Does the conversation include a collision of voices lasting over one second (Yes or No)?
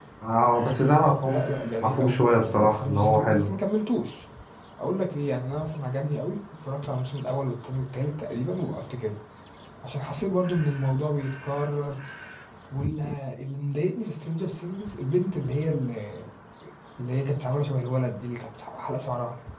Yes